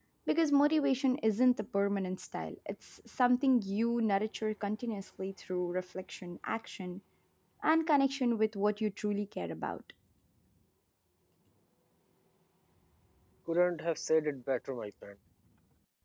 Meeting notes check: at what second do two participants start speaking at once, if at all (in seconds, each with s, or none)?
none